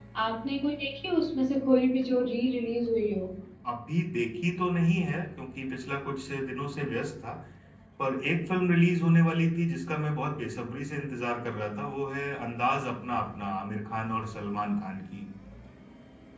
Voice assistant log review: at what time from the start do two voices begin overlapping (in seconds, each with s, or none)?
none